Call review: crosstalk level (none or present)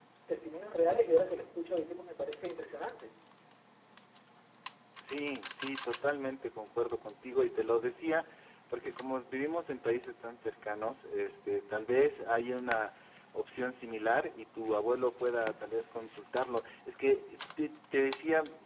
none